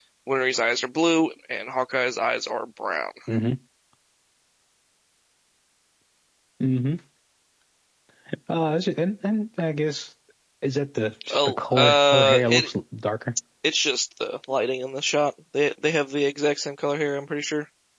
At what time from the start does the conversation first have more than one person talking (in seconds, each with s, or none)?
11.3 s